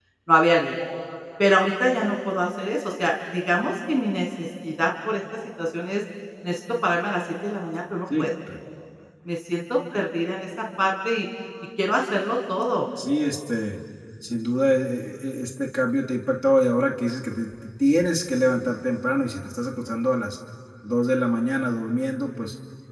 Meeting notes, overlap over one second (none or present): none